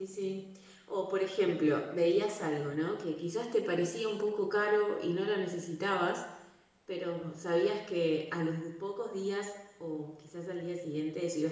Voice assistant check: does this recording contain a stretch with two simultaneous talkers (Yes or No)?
No